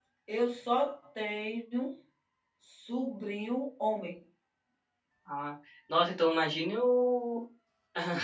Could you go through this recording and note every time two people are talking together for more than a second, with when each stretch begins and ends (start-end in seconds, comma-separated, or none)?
none